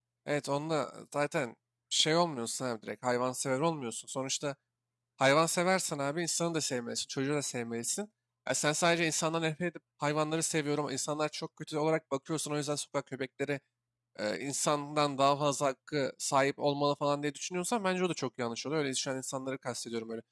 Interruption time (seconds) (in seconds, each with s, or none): none